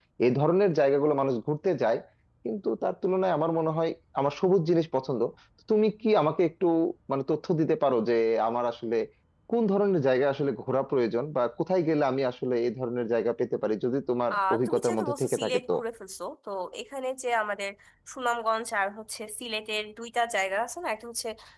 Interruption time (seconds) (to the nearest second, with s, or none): 14 s